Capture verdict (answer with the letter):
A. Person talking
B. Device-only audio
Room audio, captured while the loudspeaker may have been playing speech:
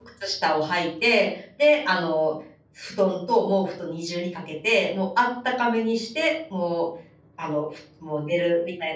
A